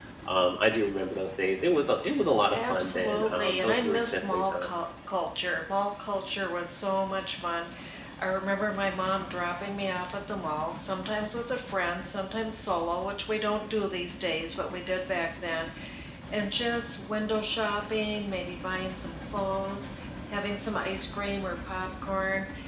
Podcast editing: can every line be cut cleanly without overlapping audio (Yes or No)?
No